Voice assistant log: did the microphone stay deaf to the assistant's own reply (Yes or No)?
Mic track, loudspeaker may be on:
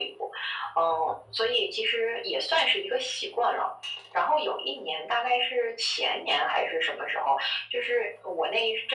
No